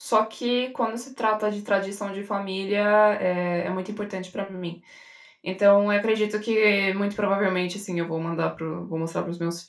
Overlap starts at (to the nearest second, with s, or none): none